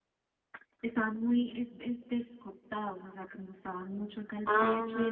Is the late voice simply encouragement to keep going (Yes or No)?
Yes